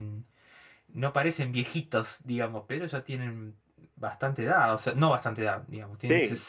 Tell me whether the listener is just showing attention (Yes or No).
Yes